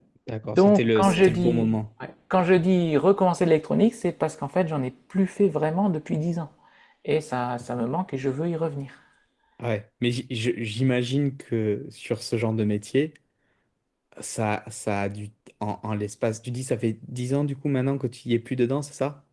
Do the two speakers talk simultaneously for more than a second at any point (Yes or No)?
Yes